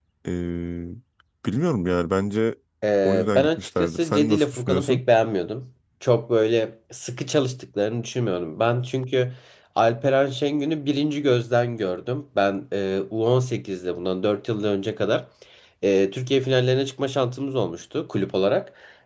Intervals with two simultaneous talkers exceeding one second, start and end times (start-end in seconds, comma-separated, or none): 3.0-5.0